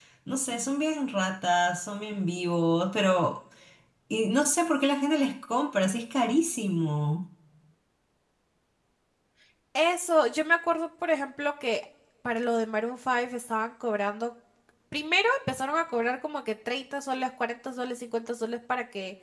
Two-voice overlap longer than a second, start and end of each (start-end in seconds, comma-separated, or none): none